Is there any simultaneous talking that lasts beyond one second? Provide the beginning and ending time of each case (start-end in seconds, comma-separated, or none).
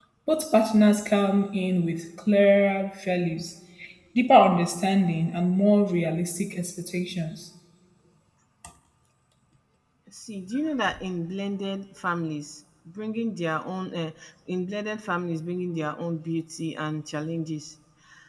none